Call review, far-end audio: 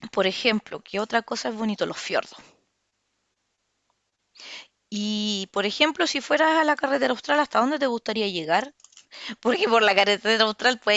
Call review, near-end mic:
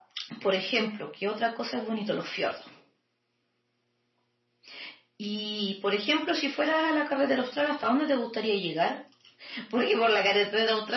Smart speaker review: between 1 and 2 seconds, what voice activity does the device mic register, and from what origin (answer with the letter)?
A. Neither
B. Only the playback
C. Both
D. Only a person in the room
B